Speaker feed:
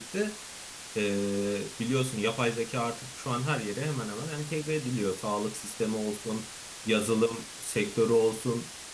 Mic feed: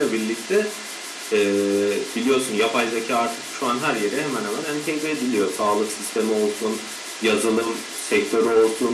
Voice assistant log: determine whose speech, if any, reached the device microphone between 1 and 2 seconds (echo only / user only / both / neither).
echo only